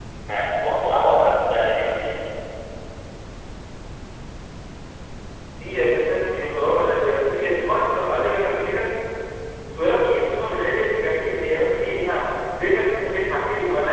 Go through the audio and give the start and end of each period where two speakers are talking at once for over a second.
none

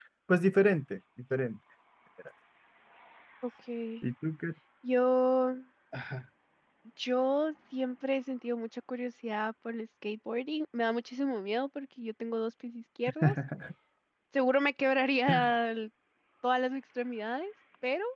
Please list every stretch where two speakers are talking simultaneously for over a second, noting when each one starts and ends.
none

